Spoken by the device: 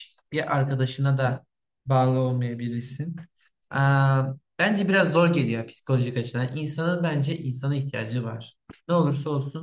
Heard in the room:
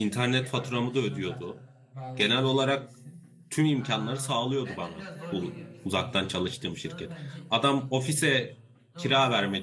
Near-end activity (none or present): present